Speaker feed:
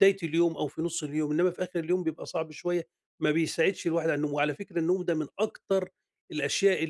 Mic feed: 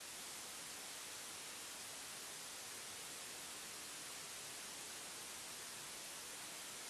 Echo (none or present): none